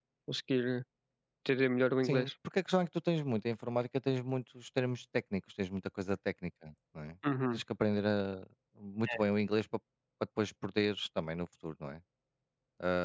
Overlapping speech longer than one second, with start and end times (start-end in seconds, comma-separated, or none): none